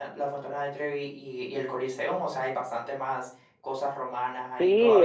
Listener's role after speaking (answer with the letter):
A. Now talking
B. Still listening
A